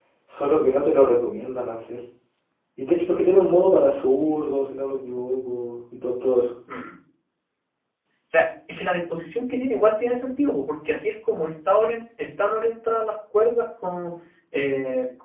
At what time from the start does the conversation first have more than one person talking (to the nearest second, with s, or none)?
none